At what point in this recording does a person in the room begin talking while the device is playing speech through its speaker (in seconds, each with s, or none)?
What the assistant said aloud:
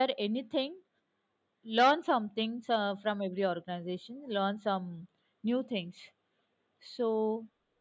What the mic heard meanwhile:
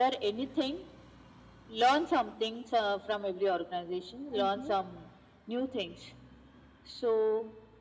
4.4 s